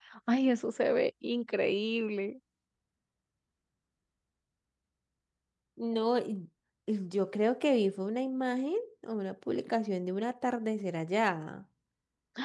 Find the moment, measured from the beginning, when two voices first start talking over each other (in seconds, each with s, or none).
none